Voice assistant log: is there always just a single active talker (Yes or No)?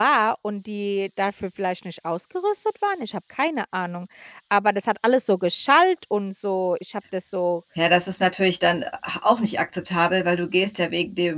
Yes